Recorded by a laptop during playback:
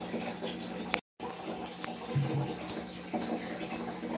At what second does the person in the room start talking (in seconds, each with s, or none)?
none